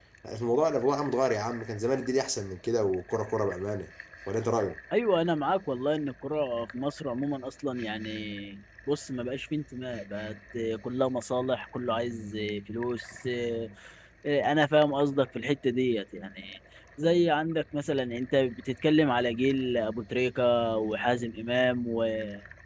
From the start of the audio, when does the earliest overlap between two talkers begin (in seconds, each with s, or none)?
none